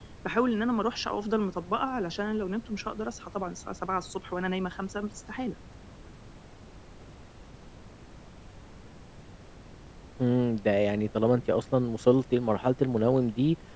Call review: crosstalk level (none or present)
none